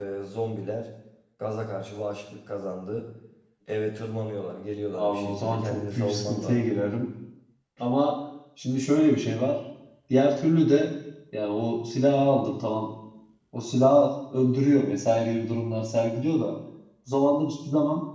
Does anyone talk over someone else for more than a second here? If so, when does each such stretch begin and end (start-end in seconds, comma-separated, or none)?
4.9-6.7